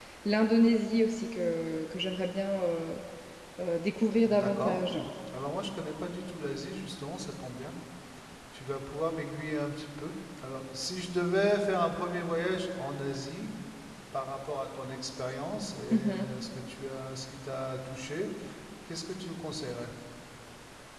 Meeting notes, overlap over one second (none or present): none